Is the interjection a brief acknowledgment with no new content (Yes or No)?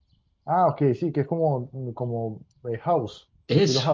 No